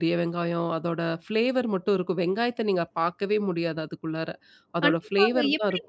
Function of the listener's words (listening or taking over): taking over